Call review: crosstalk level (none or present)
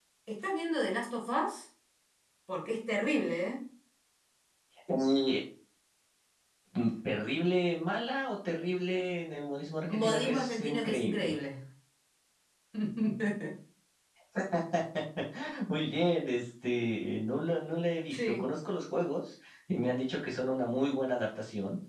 present